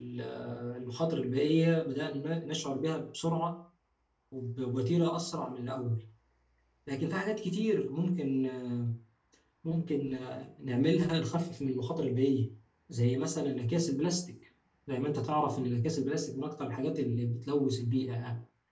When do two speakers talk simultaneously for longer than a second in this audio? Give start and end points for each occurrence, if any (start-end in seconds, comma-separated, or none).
none